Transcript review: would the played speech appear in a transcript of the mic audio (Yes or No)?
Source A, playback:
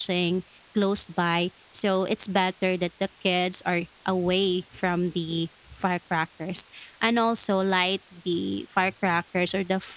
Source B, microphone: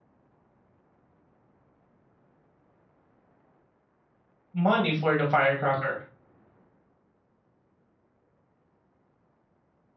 No